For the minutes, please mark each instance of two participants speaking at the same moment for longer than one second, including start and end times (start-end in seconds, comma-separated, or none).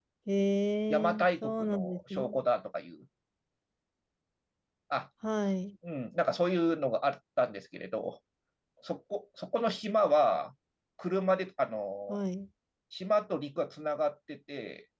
0.9-2.4